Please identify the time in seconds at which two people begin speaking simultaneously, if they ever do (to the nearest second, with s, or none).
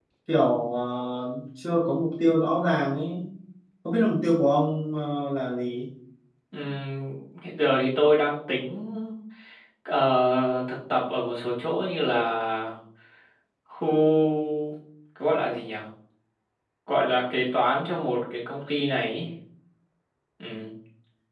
none